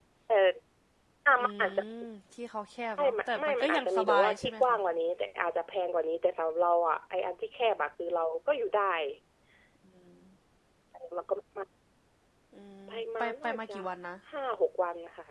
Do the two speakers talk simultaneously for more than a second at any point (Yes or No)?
Yes